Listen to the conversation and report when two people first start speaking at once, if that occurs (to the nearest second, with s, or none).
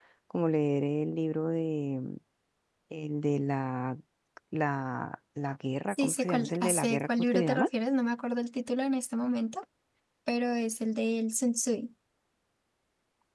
6 s